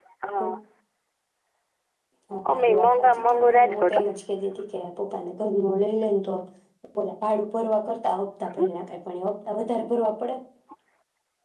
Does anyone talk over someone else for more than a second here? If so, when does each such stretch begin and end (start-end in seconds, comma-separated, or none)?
2.5-4.0